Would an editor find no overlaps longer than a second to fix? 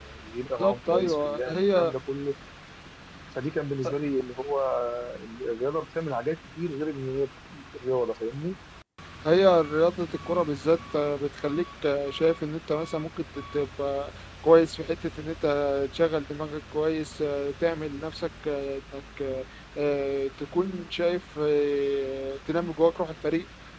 No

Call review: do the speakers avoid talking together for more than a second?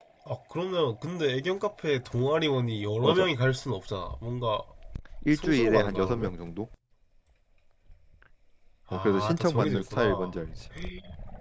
No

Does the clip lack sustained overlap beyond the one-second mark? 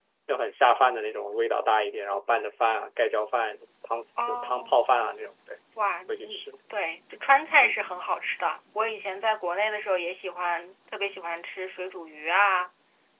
Yes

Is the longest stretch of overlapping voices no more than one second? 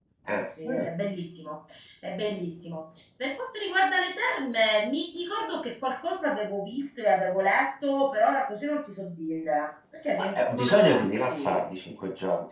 No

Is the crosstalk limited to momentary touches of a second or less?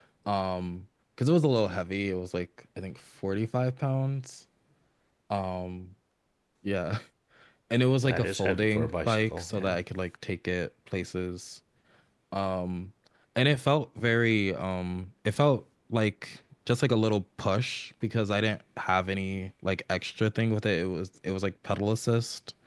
No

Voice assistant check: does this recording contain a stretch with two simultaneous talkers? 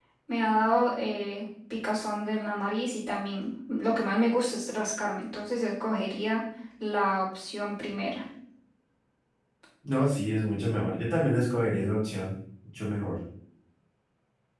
No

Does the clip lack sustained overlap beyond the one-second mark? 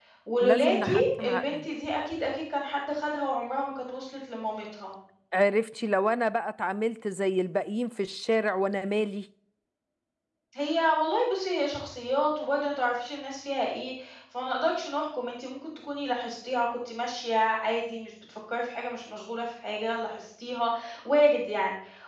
No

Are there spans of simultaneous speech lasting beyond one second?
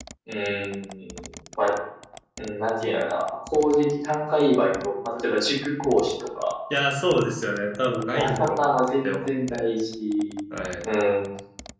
Yes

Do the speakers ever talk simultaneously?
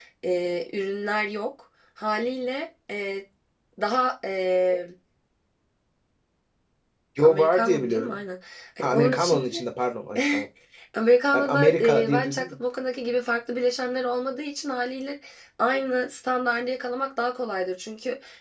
Yes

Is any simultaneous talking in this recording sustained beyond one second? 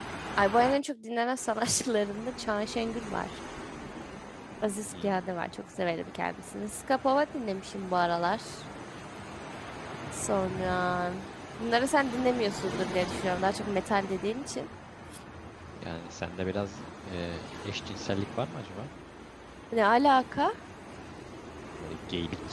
No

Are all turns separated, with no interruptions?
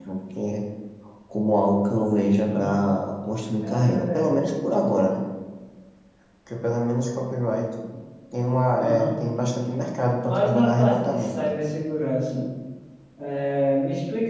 No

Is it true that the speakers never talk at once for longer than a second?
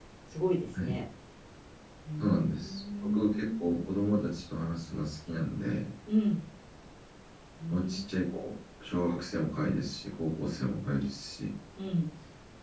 No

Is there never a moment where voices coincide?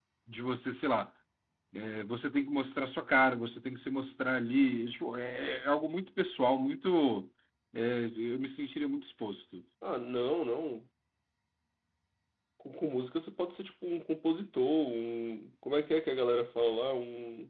Yes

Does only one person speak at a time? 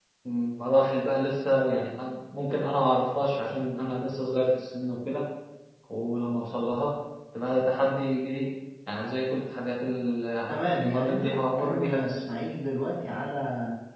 No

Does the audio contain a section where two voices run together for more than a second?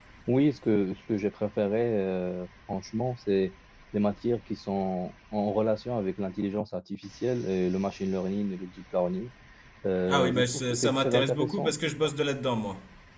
Yes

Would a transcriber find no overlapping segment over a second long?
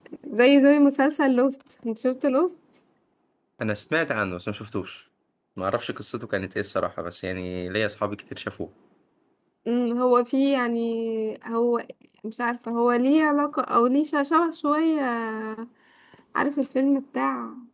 Yes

